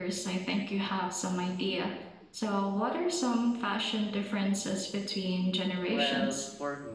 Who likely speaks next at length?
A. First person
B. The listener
B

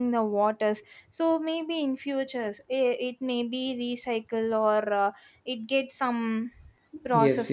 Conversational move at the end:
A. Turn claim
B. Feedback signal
A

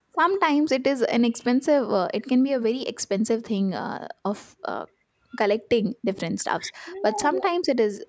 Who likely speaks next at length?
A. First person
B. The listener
A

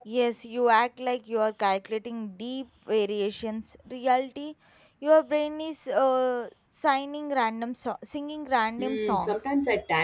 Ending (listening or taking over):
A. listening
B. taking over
B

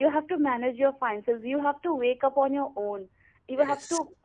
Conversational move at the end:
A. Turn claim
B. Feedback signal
B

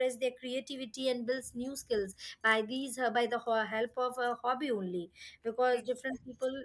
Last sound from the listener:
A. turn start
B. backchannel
B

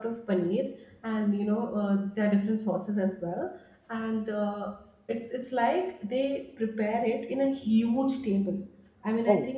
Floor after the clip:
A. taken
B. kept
B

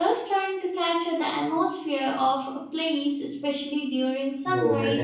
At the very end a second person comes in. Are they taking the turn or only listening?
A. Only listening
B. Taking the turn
B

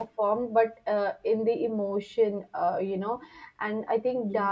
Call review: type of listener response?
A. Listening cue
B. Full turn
A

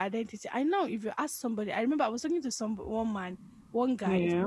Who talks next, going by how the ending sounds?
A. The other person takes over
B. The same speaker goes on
B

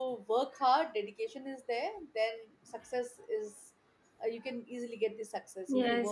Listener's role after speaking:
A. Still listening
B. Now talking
B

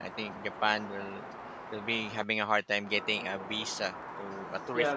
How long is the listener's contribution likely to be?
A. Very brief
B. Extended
B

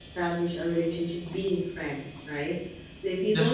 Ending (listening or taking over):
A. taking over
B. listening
B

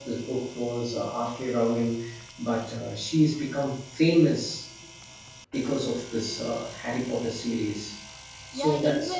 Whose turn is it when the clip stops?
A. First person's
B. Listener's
B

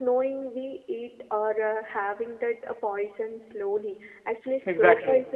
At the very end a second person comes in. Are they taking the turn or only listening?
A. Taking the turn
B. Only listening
B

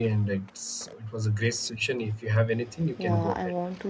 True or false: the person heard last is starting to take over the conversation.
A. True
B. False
A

